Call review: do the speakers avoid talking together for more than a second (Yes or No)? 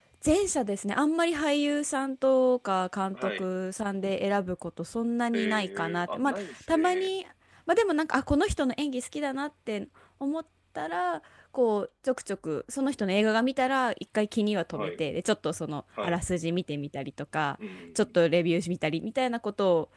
No